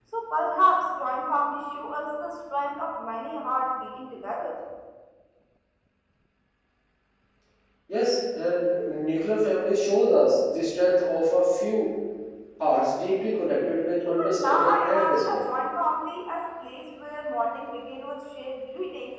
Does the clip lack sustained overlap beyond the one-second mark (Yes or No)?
No